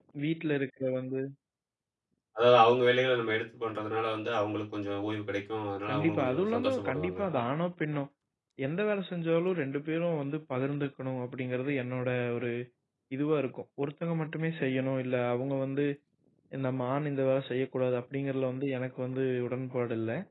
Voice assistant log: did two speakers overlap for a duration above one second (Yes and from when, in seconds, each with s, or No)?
Yes, from 5.9 s